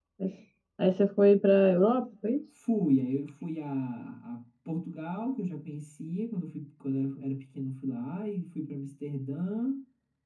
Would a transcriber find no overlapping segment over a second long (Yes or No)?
Yes